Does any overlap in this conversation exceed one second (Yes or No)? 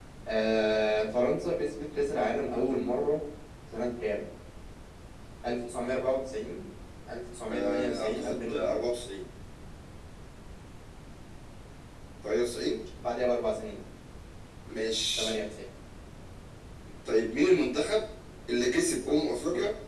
Yes